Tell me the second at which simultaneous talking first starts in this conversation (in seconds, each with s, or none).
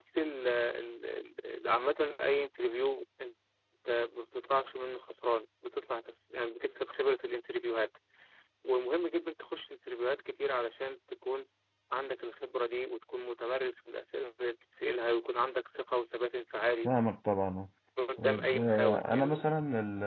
18.2 s